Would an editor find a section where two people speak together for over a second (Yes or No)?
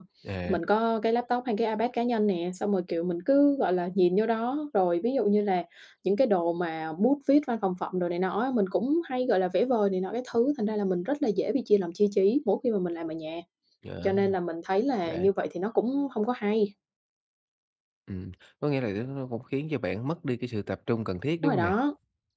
No